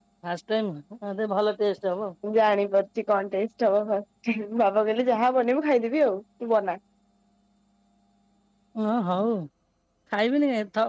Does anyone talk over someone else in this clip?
No

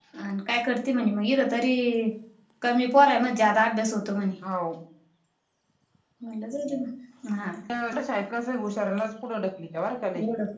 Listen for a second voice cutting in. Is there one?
No

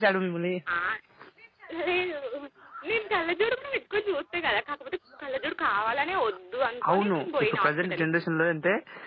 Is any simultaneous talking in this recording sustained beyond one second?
Yes, from 6.8 s

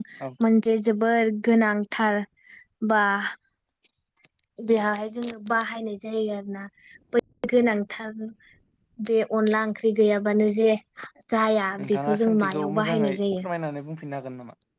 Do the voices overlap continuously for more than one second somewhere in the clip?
Yes, from 11.8 s

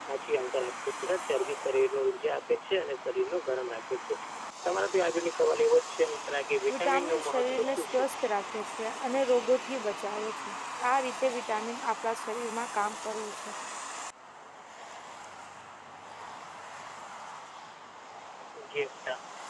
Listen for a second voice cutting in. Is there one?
Yes, from 6.7 s

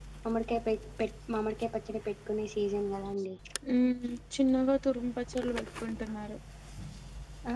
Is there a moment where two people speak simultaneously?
No

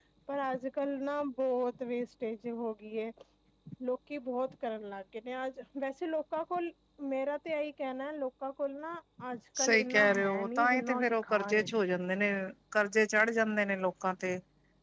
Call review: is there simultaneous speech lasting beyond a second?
Yes, from 9.6 s

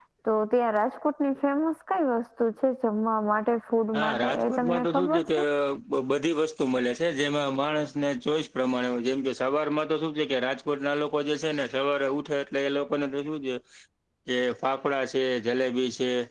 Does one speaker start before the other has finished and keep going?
Yes, from 3.9 s

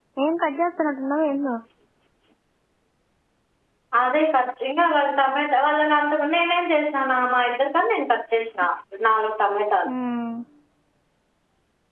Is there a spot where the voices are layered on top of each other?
No

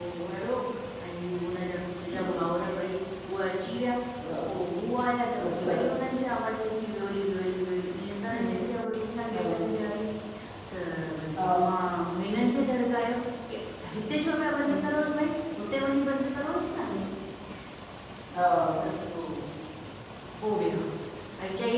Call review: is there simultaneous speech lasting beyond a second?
No

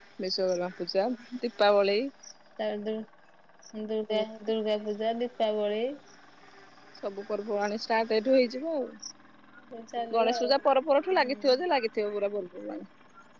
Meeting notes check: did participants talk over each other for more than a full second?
No

